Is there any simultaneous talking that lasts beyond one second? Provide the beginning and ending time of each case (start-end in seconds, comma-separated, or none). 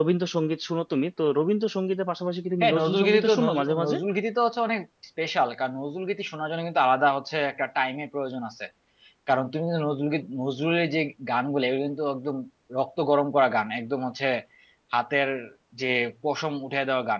2.6-4.0